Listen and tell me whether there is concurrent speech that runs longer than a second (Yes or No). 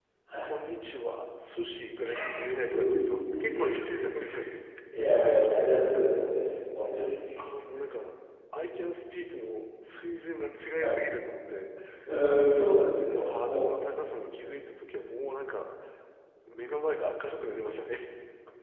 Yes